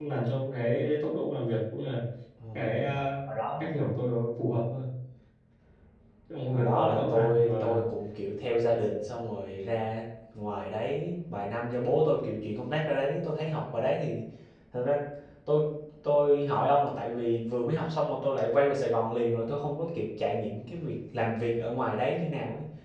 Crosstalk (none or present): present